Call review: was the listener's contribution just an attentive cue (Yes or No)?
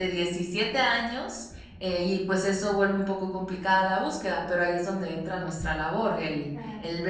Yes